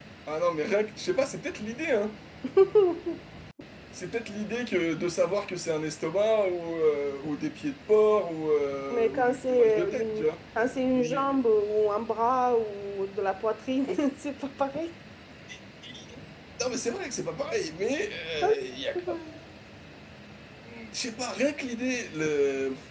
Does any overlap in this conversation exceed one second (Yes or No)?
Yes